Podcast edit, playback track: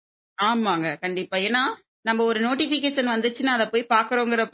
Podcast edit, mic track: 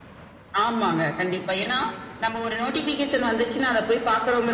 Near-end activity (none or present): none